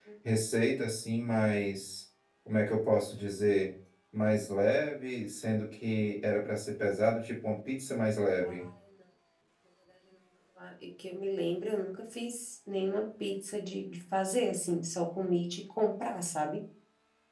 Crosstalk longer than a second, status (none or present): none